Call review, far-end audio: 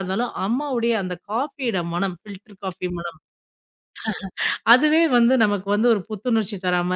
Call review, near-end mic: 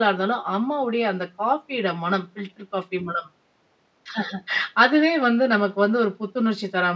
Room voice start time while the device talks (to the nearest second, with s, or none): none